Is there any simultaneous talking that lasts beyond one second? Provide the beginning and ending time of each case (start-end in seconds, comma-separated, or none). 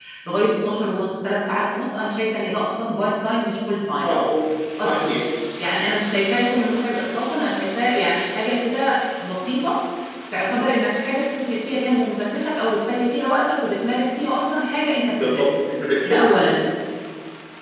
none